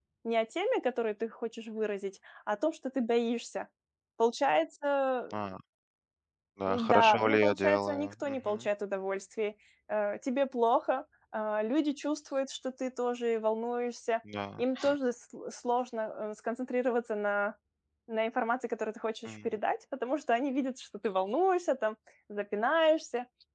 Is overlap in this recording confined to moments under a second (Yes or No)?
No